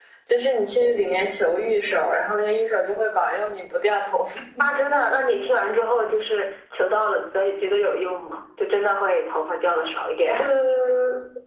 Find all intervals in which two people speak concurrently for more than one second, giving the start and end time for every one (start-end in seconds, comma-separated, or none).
none